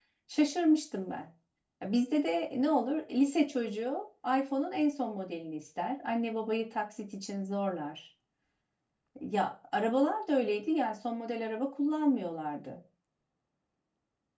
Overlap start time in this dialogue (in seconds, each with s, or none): none